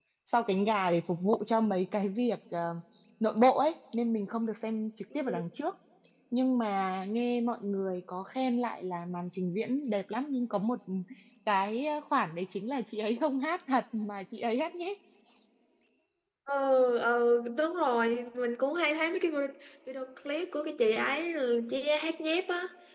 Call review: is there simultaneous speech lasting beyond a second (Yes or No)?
No